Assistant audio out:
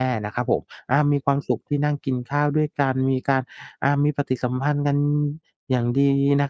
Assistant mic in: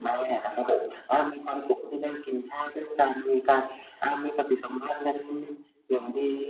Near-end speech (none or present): none